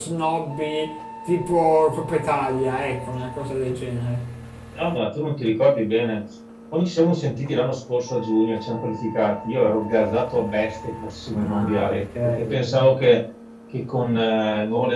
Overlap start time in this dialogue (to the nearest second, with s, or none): 11 s